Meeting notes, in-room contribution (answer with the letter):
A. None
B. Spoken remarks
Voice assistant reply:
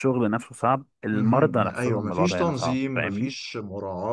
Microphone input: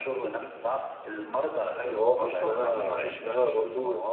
B